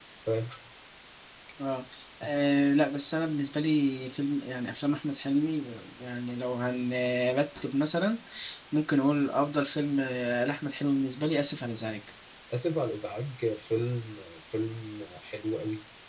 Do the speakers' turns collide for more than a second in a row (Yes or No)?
No